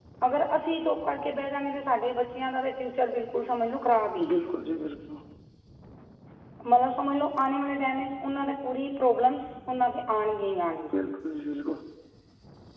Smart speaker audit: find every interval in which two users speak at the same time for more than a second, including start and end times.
none

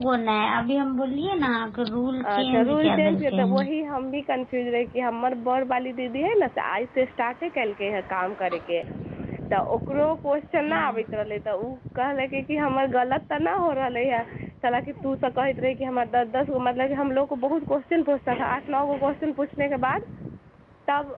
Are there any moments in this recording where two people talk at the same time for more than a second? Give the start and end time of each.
2.4-3.6

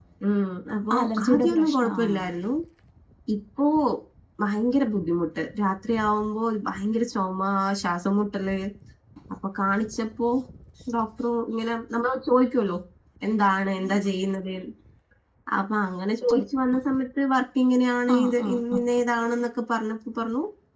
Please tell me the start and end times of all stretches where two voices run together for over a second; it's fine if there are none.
1.0-2.3

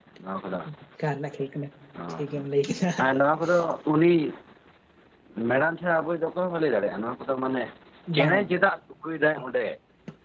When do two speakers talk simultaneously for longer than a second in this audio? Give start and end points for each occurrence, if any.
none

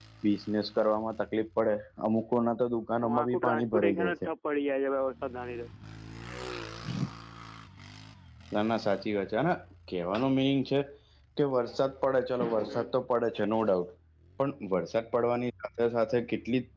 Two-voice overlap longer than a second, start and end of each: 3.1-4.3

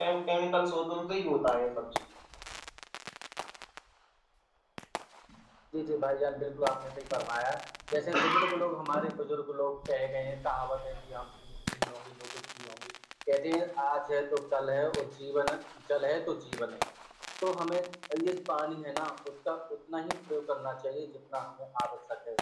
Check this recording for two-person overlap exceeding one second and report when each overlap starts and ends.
none

